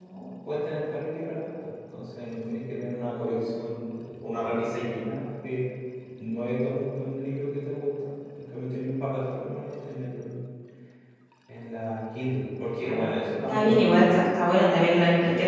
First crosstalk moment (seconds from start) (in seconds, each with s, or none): 12.8 s